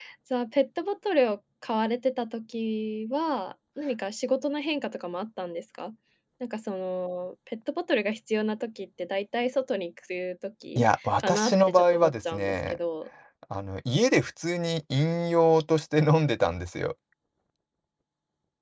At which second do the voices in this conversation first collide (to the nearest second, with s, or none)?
11 s